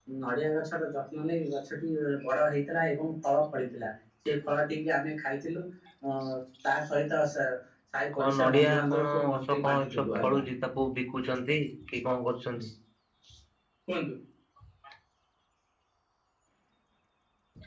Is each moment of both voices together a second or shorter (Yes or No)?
No